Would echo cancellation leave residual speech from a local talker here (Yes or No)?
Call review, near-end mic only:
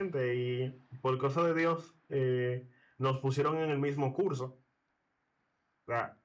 Yes